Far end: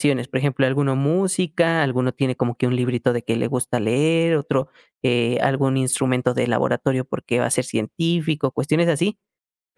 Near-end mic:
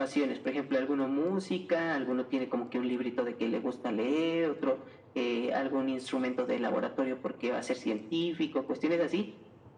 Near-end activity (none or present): none